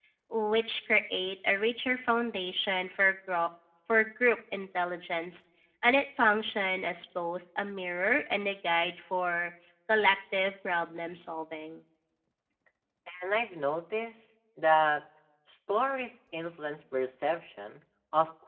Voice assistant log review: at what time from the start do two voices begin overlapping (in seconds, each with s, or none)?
none